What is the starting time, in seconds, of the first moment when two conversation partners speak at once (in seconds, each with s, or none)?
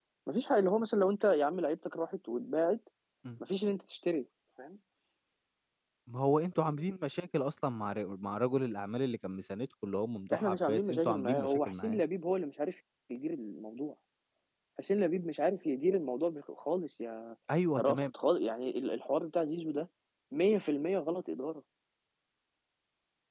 10.3 s